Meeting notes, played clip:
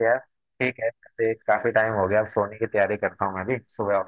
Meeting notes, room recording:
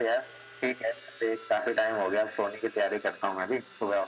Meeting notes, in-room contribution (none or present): none